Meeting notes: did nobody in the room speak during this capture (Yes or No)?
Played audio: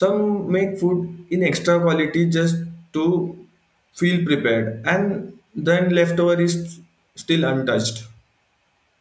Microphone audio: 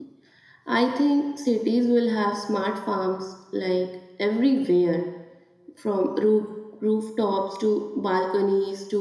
No